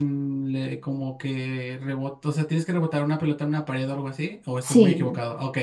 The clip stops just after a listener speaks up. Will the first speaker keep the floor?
No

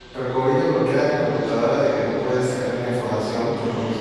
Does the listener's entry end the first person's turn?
No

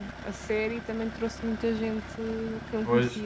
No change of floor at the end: No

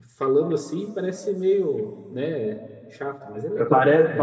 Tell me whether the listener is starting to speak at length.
Yes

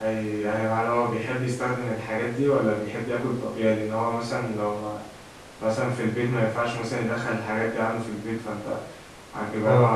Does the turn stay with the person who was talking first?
Yes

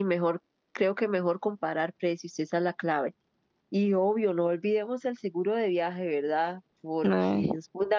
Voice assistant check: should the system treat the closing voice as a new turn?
No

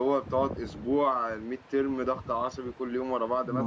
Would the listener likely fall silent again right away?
No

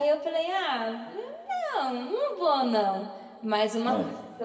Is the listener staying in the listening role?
Yes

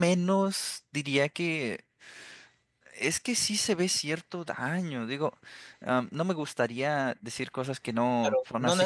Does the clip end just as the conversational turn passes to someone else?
Yes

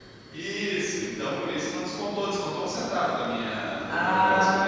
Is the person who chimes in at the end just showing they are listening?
No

